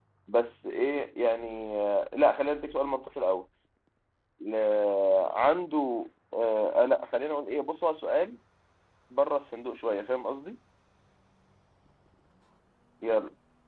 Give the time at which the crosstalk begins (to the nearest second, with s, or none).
none